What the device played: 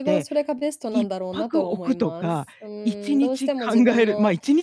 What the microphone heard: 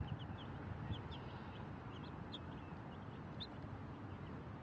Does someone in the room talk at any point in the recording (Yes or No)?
No